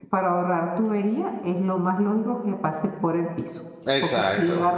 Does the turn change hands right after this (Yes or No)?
No